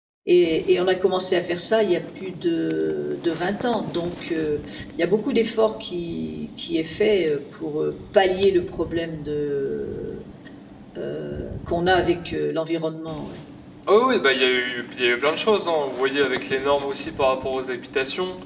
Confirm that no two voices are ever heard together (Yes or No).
Yes